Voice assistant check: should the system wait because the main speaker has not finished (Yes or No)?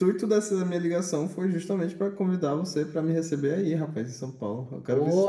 No